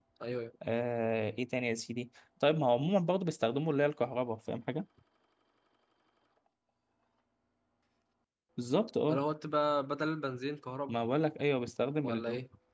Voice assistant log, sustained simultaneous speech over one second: none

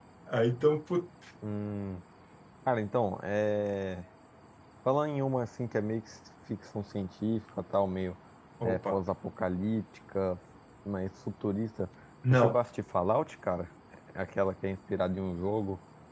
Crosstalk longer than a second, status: none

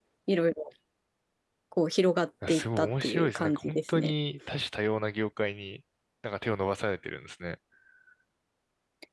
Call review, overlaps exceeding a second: present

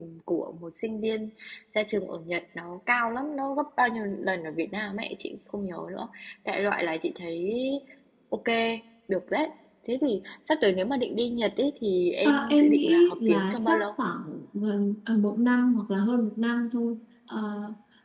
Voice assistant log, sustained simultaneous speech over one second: present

